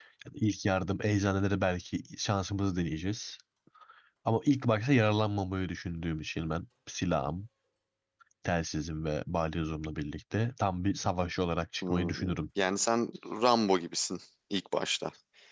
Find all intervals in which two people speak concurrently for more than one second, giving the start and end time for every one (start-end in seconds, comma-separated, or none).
none